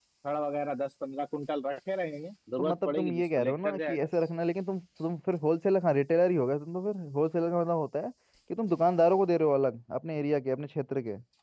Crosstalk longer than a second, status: present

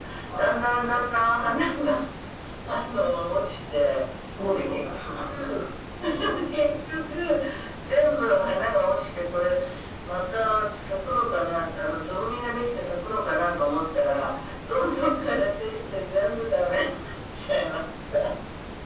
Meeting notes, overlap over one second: none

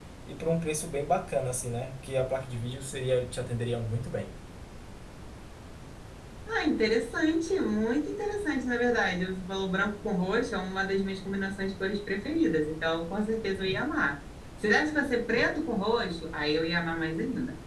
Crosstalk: none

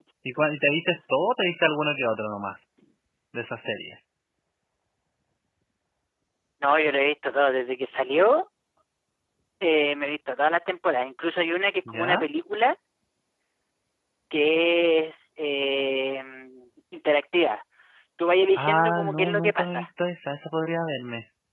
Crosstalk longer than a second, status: present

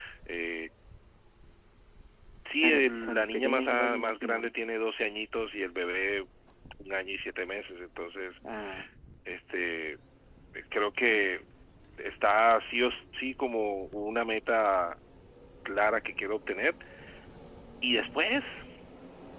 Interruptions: present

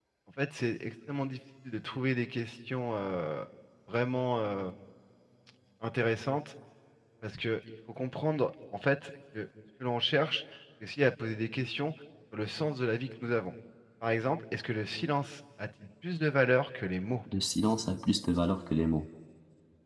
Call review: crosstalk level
none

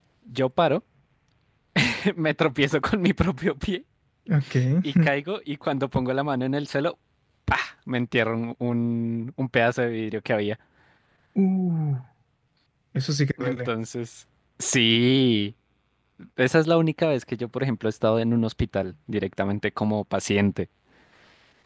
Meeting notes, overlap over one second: none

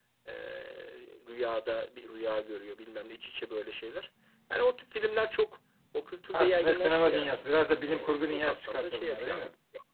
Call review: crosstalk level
present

